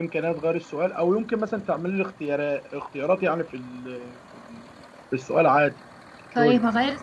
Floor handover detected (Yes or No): Yes